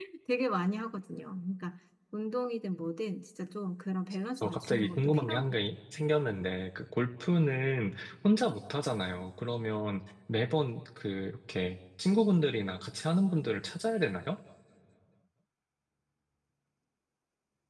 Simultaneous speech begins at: 4.4 s

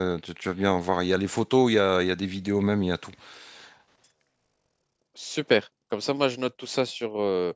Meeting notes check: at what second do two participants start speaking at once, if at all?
none

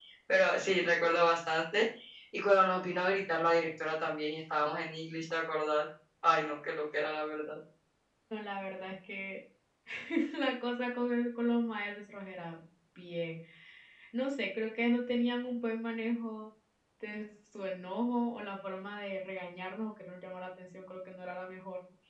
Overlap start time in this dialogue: none

